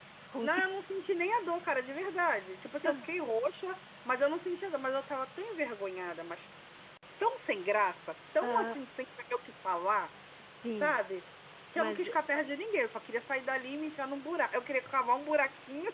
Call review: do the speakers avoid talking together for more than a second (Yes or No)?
Yes